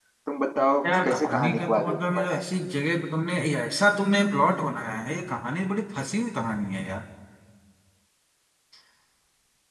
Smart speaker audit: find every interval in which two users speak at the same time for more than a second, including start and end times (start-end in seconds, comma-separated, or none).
1.0-2.4